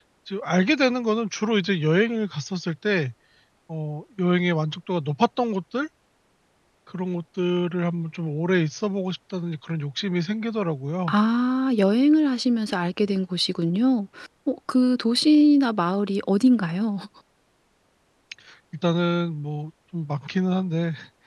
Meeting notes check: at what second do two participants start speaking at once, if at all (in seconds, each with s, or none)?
none